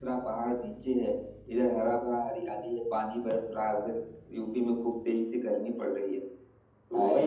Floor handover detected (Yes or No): Yes